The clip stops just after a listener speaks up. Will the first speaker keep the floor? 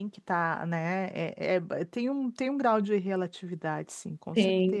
No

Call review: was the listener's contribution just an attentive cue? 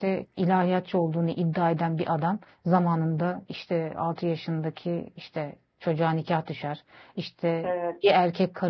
Yes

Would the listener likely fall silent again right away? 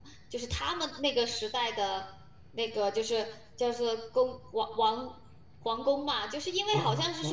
Yes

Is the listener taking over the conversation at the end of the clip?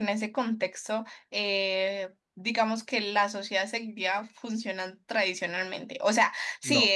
No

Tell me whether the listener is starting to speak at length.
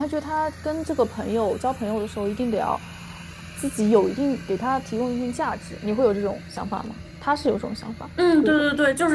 Yes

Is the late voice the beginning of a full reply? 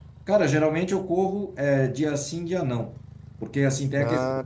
No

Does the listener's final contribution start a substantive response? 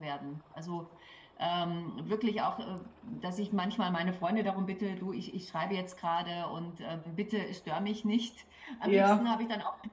No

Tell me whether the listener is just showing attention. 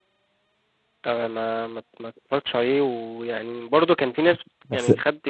Yes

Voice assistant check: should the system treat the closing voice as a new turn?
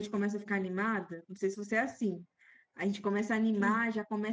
No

